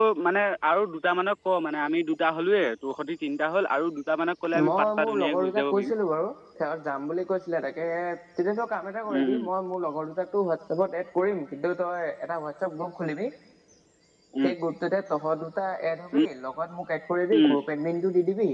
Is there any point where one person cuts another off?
Yes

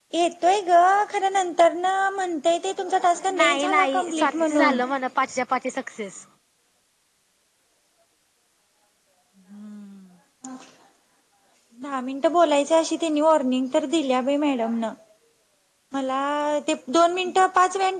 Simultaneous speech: Yes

